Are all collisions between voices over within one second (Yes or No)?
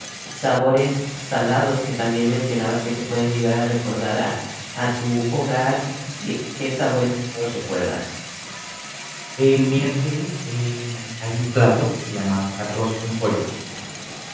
Yes